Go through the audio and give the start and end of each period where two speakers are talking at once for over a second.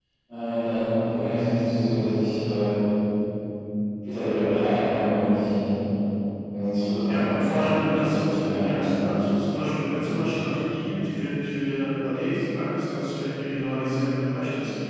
7.1-8.8

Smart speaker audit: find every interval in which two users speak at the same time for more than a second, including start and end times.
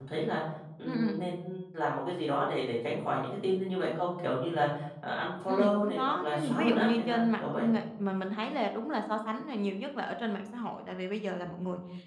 5.5-7.7

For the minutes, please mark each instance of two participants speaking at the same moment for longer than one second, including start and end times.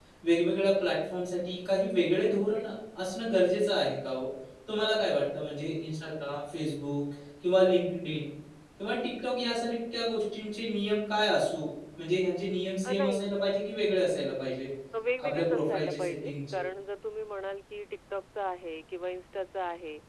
15.2-16.6

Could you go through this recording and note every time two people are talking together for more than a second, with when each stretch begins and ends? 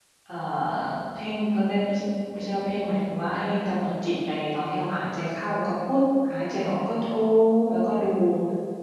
none

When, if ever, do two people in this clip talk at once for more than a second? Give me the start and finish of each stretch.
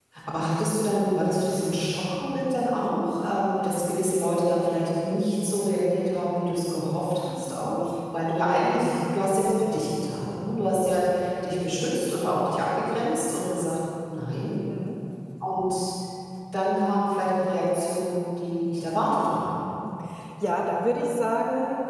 none

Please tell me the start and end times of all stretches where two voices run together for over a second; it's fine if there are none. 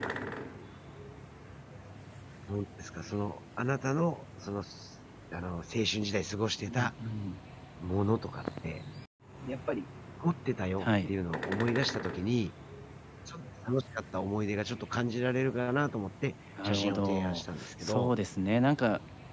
16.6-18.1

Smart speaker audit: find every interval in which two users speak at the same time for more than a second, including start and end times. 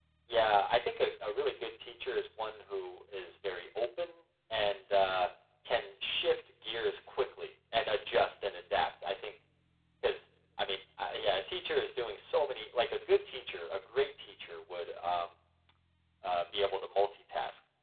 none

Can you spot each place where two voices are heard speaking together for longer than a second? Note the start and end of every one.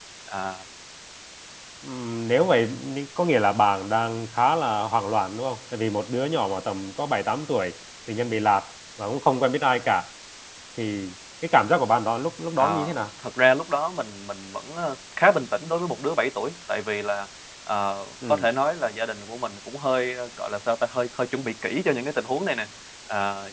none

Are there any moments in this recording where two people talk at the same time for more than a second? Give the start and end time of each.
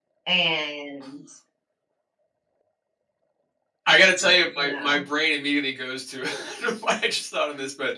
none

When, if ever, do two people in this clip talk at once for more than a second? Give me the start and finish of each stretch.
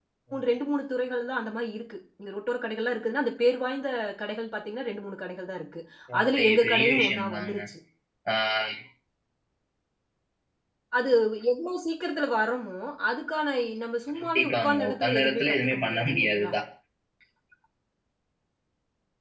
6.2-7.5, 14.3-16.5

